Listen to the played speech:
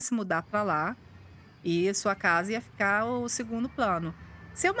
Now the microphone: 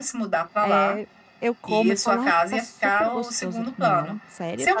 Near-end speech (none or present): present